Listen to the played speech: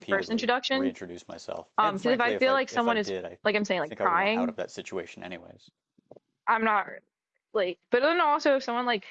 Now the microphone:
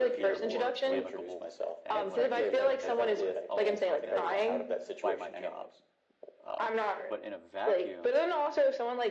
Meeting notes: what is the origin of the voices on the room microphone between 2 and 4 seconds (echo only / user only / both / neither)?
both